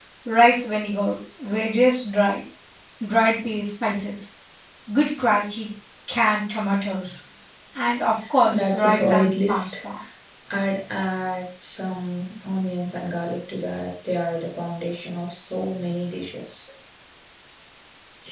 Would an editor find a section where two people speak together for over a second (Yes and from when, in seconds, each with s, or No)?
Yes, from 8.5 s